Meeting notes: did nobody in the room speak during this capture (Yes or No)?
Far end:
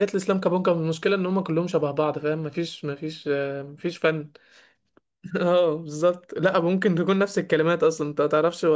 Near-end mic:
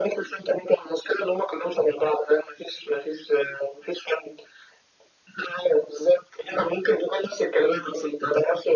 Yes